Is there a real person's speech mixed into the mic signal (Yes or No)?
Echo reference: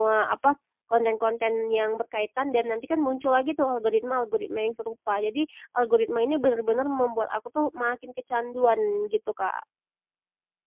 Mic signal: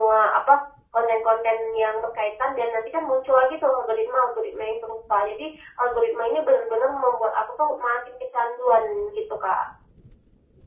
No